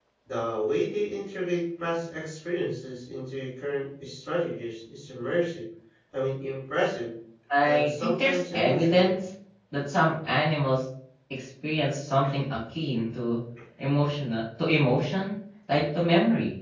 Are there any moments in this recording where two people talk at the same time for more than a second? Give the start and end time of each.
7.6-9.1

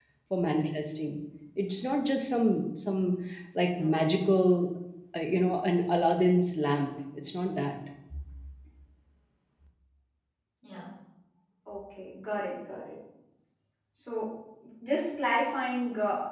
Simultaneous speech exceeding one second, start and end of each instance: none

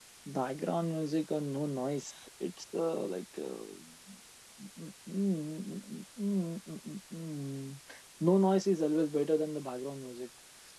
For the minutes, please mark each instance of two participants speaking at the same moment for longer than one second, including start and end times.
none

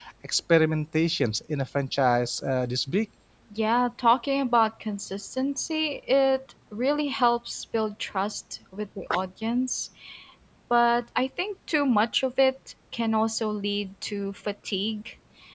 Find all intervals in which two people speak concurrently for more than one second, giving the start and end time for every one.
none

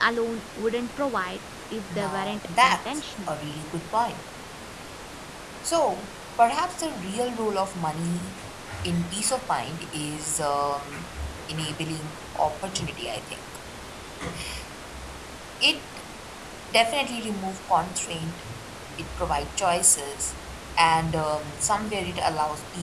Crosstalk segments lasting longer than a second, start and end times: 1.9-3.3

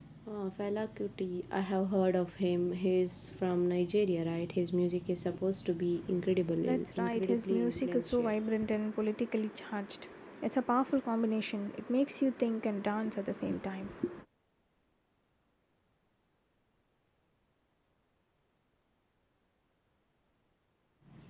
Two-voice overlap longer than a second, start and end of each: 6.6-8.3

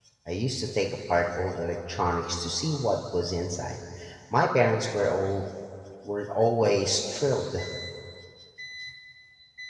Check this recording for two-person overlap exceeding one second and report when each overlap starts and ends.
none

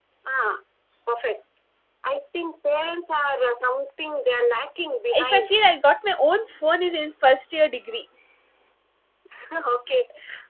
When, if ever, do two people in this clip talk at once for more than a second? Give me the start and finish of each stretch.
none

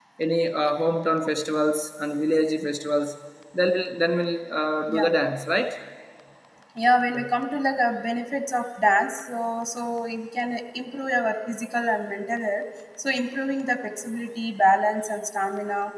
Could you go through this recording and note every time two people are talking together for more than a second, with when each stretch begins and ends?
none

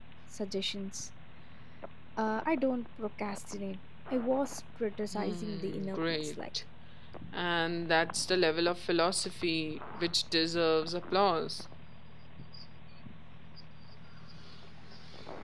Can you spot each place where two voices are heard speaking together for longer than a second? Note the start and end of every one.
5.1-6.4

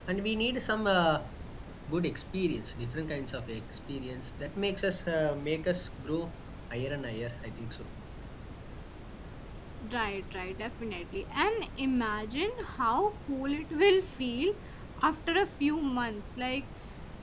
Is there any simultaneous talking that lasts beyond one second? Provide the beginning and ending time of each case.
none

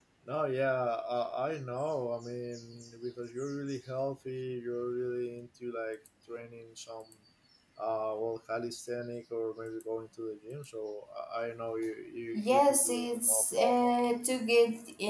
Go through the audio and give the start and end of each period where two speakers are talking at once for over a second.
12.3-13.9

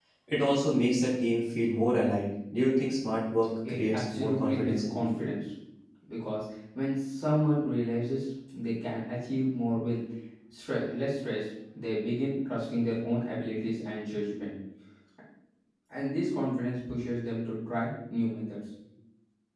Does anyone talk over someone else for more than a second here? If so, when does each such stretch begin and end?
3.7-5.3

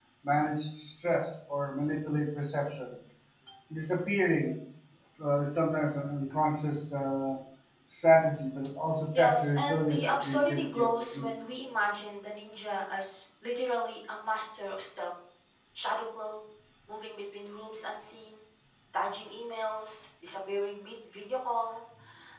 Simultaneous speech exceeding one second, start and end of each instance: 9.1-11.3

